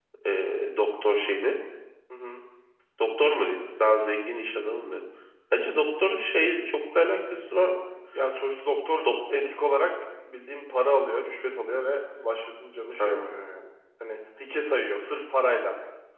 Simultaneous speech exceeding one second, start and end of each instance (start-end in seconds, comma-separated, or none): none